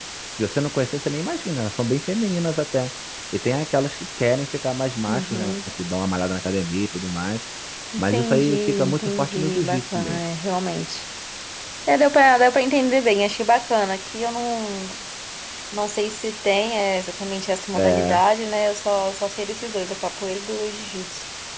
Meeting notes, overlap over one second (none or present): present